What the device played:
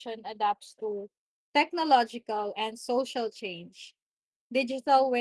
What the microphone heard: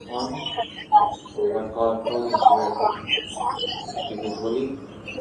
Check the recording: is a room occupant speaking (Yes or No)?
Yes